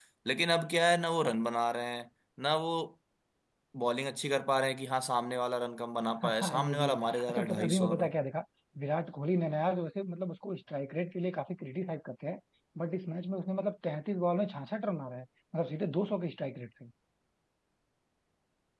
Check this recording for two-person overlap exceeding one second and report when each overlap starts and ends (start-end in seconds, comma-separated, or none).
6.2-8.1